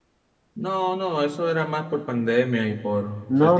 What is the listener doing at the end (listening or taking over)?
taking over